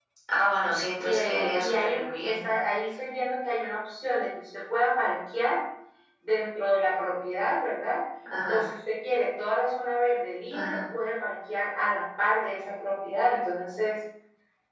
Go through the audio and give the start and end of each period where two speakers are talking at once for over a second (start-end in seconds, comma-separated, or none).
1.0-2.4